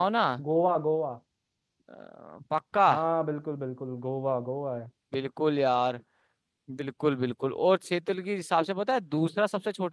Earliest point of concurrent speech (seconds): none

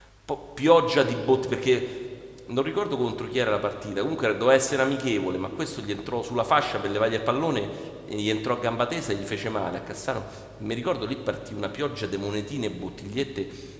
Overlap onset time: none

